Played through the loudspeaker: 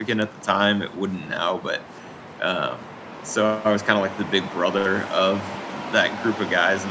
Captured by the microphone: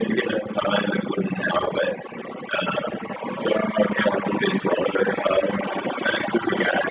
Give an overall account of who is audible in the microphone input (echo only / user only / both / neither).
echo only